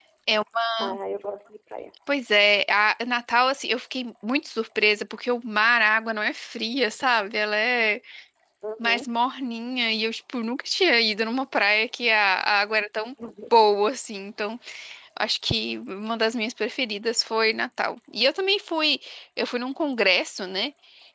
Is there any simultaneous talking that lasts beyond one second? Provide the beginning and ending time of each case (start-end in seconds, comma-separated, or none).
none